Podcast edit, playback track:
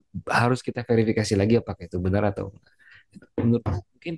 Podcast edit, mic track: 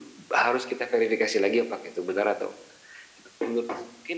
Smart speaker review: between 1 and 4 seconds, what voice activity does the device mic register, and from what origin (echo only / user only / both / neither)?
echo only